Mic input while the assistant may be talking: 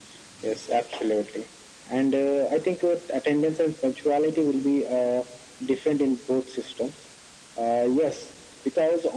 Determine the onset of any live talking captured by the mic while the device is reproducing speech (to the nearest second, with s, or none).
none